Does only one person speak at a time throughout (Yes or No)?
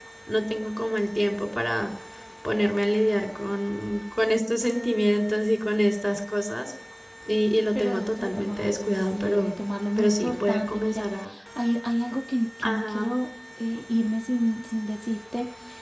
No